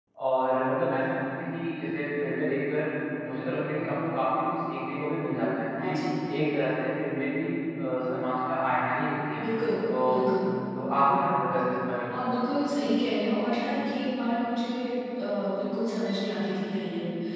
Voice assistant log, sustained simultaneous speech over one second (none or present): none